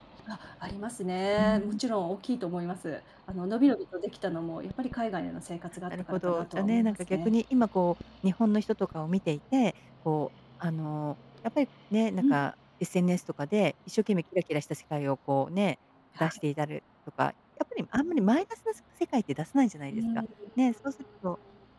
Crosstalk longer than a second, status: present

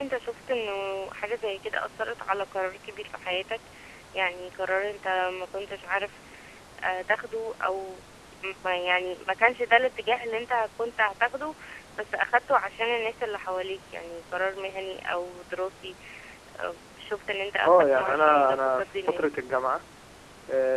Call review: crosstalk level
present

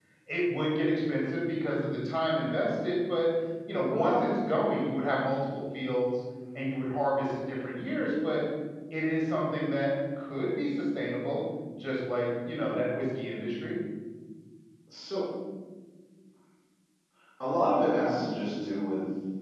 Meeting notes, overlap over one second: none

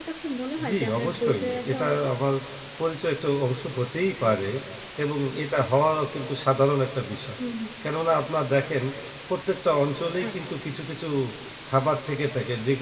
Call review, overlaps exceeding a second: present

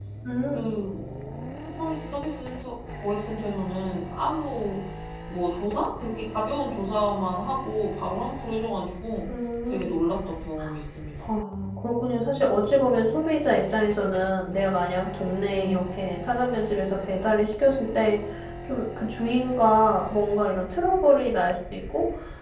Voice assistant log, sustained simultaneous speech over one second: none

